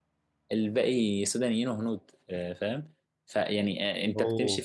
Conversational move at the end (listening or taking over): listening